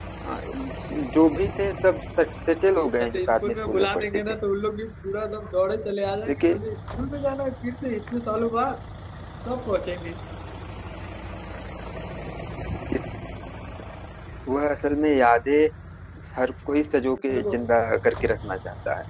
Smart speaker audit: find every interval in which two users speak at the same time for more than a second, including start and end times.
3.0-4.2

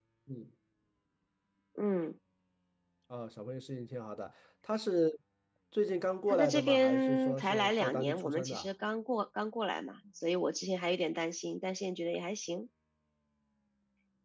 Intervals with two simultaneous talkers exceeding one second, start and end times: 6.3-8.7

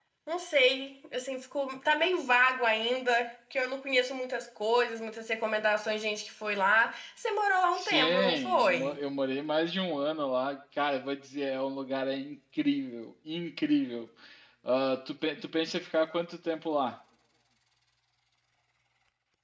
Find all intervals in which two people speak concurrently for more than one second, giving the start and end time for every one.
7.7-9.0

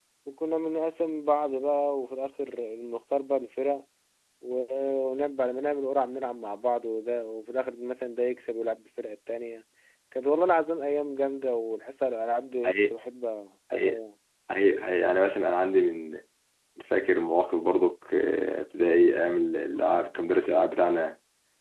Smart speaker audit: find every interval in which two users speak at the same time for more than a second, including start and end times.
none

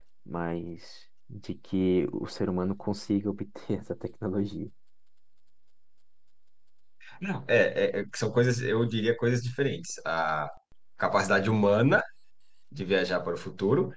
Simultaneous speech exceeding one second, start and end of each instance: none

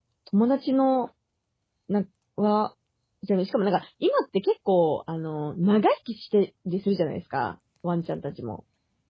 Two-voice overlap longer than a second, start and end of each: none

